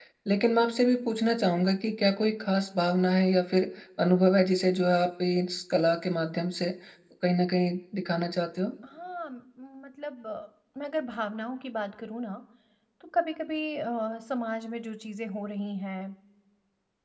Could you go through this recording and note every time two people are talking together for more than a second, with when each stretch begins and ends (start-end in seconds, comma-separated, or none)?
none